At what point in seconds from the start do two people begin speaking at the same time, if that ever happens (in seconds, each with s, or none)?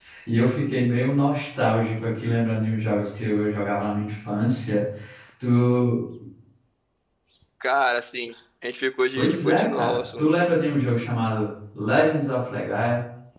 9.2 s